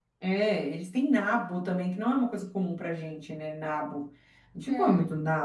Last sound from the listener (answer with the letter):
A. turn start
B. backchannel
B